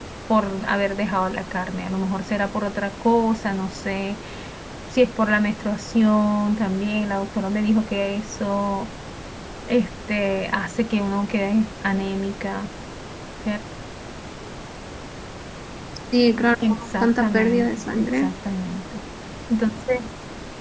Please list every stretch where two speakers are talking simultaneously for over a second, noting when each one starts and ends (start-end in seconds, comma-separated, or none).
16.6-18.3